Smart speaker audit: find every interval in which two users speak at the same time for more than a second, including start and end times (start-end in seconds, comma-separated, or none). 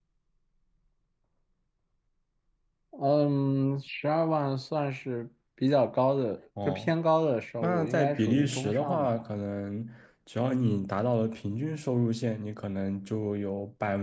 7.6-9.2